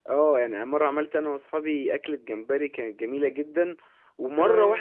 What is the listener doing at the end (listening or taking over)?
listening